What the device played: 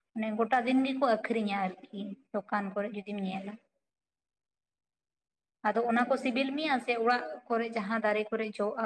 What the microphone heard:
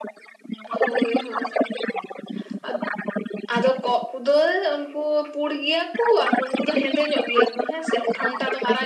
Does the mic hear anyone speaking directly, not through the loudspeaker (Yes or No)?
Yes